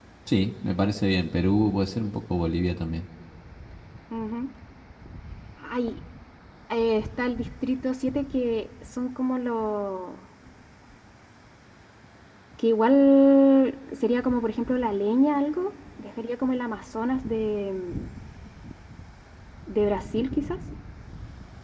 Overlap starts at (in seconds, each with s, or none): none